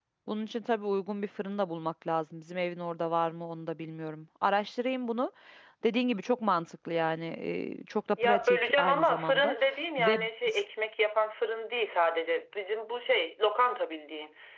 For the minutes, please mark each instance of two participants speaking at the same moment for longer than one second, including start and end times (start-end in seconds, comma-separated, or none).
8.2-9.5